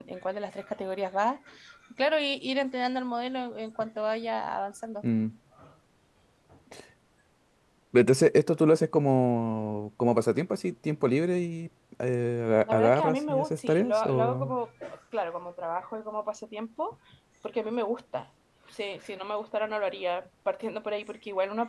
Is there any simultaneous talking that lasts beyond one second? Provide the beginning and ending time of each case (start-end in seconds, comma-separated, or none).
12.7-14.5